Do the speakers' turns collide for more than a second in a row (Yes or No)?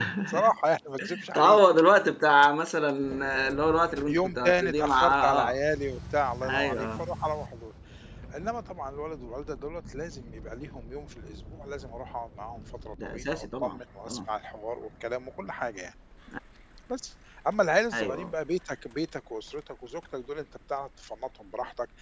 Yes